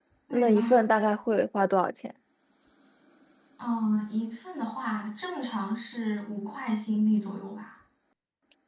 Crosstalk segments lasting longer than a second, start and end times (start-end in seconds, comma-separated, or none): none